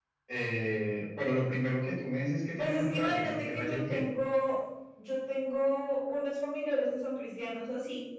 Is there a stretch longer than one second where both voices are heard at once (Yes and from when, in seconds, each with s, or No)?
Yes, from 2.6 s